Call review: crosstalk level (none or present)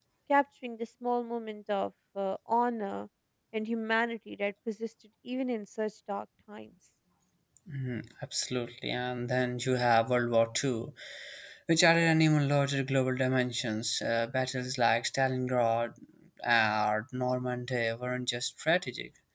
none